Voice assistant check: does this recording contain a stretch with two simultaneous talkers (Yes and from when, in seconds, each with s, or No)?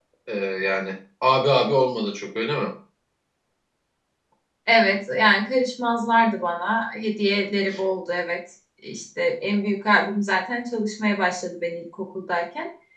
No